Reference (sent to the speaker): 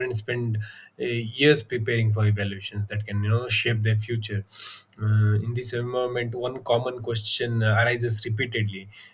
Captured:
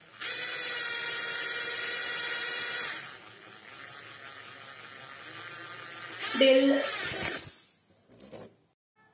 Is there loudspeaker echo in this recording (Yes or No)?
No